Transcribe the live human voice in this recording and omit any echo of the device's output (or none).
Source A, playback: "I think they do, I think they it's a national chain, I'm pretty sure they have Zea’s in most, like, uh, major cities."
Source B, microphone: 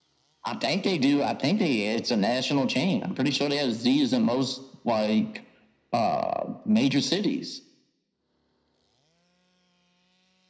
none